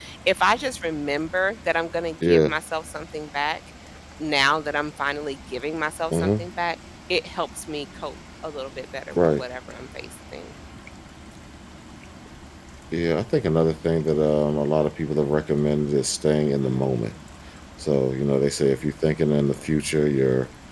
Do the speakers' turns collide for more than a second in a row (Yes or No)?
No